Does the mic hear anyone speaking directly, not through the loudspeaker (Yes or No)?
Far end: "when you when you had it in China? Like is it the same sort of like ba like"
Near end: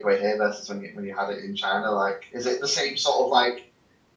No